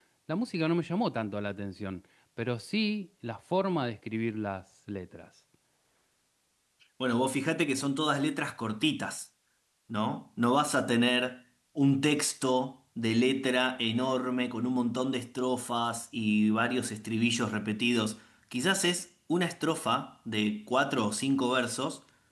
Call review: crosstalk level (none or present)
none